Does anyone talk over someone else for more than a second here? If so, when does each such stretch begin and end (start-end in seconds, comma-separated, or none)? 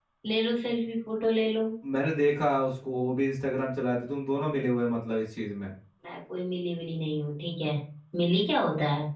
none